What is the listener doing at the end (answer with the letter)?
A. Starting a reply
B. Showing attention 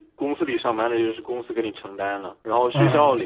B